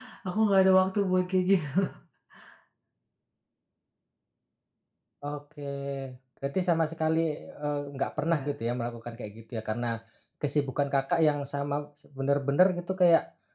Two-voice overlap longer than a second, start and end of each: none

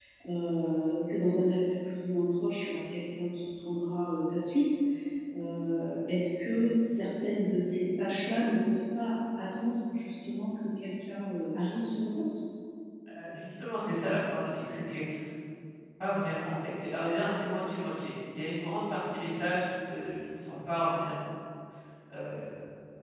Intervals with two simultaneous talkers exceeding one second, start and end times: none

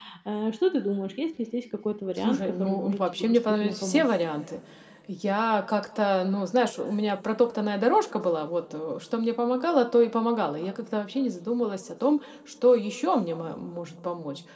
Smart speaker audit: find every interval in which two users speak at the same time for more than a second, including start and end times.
2.2-4.0

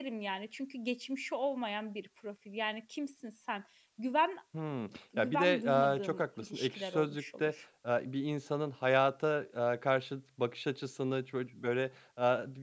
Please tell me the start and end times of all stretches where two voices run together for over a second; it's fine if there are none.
5.2-7.6

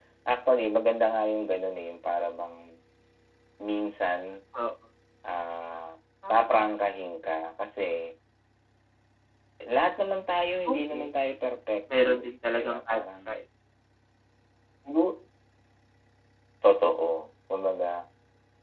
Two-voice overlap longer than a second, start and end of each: 12.0-13.4

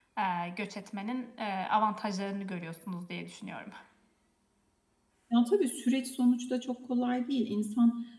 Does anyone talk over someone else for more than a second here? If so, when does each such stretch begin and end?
none

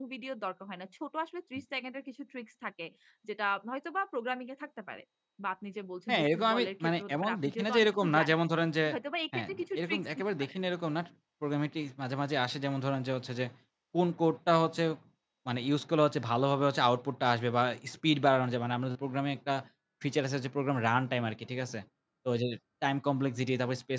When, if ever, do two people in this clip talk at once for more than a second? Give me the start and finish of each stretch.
6.1-8.4, 9.3-10.6

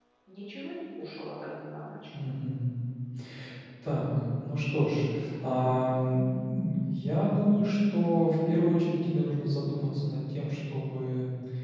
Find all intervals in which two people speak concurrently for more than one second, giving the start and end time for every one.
none

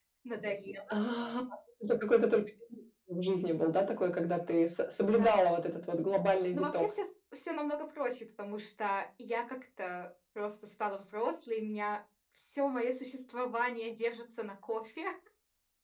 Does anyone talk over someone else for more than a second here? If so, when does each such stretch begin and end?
none

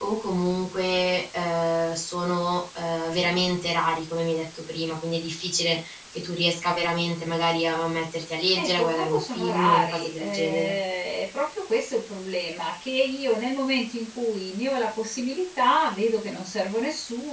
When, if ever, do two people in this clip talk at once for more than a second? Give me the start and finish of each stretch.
8.6-10.7

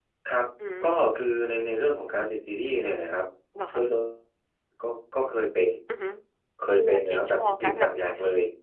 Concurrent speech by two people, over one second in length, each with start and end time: 6.8-8.0

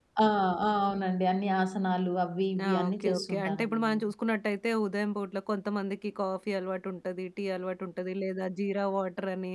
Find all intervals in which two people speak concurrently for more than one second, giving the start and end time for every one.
2.7-4.0

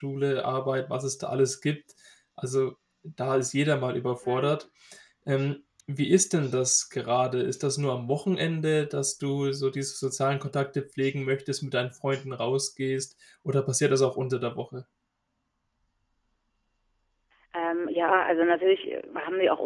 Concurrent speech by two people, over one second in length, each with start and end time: none

